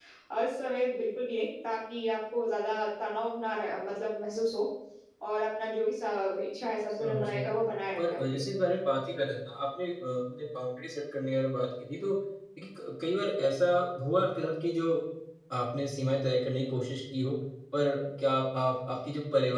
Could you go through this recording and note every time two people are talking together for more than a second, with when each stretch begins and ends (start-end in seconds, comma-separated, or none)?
none